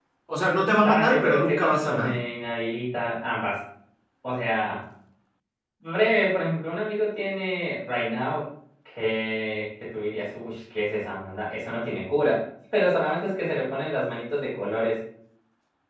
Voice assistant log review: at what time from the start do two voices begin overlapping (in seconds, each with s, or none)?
0.7 s